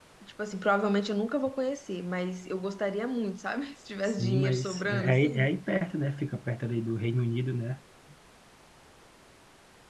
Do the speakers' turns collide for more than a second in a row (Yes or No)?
Yes